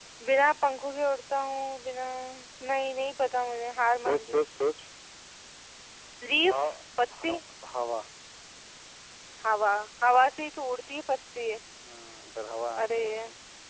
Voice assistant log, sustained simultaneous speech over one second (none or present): none